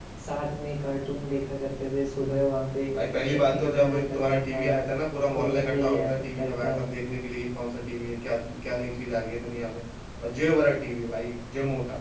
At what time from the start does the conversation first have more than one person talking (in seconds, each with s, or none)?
3.3 s